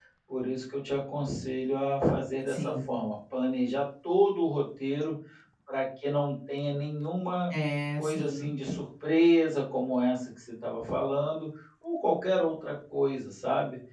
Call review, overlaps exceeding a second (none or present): none